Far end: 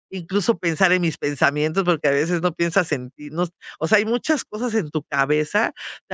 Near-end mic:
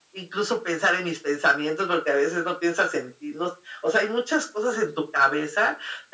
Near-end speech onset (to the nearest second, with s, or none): none